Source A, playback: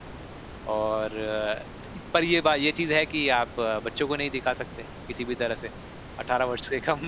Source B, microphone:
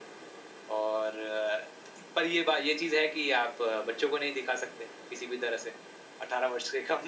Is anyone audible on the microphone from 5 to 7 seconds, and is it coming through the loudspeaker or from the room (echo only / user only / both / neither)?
echo only